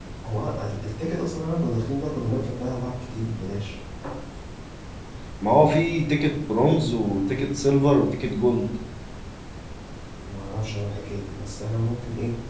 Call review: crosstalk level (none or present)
none